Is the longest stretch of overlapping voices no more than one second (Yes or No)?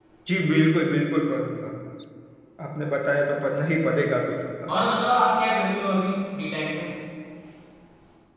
Yes